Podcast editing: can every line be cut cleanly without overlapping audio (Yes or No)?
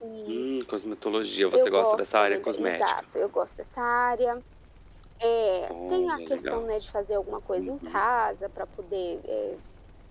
No